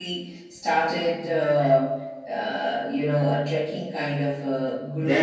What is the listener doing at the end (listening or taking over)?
taking over